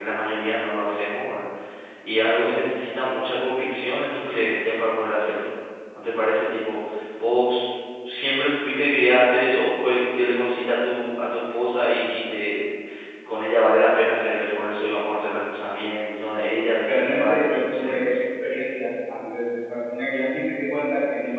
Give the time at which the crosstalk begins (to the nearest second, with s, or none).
17 s